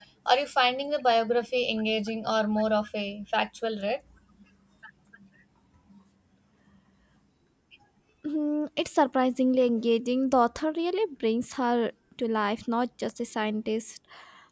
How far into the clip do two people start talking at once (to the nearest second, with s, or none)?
none